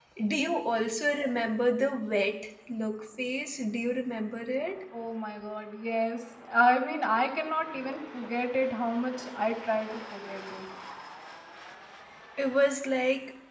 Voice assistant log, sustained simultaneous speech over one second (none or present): none